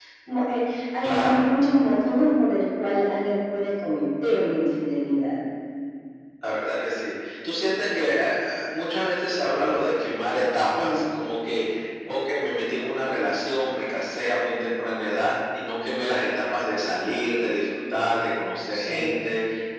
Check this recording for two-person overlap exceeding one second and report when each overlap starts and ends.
none

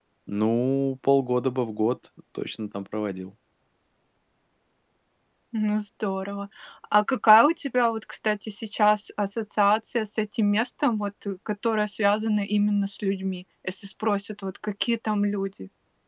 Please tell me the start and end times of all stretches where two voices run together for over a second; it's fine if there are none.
none

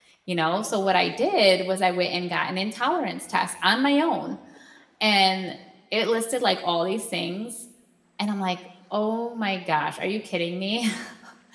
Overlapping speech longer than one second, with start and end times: none

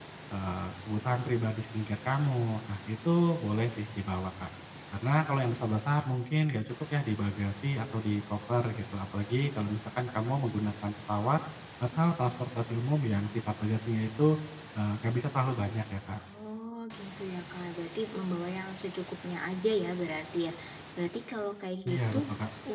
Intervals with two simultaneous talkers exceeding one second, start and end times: none

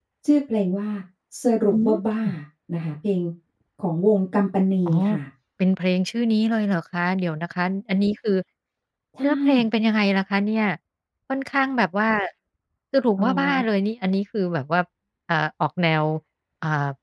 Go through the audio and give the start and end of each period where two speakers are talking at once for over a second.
none

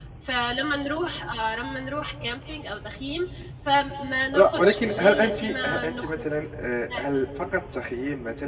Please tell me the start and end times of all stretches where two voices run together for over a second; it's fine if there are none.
4.3-6.2

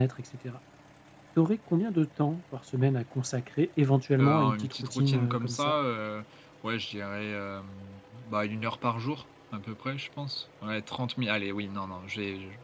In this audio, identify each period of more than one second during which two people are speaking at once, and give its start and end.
4.2-5.7

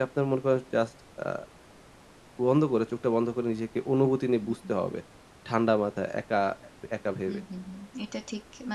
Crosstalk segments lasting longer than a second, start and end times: none

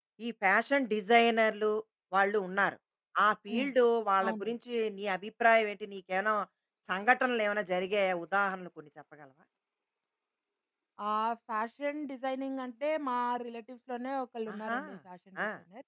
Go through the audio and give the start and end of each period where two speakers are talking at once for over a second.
none

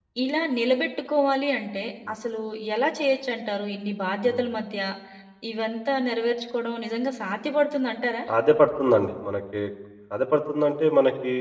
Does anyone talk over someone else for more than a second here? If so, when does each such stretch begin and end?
none

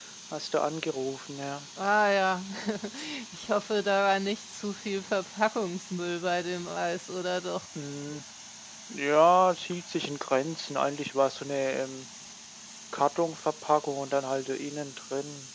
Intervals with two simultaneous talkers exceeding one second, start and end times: none

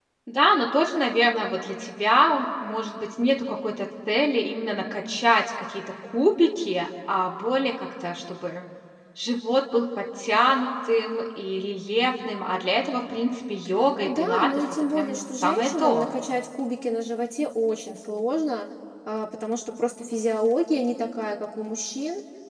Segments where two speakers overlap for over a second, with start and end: 14.0-16.1

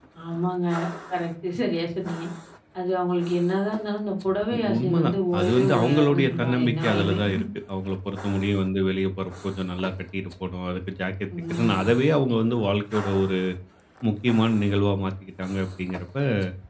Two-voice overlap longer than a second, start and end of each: 4.8-7.2

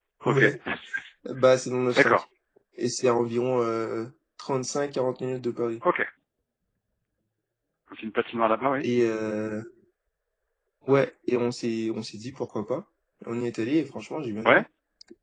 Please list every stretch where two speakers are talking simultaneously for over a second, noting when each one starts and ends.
none

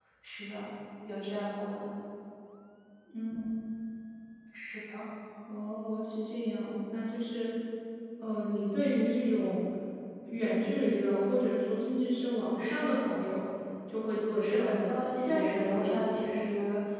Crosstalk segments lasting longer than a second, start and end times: 14.4-16.4

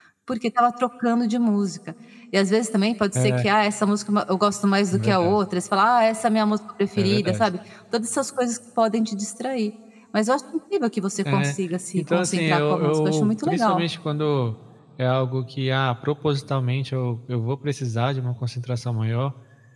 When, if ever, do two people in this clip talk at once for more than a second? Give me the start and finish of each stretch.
12.0-13.8

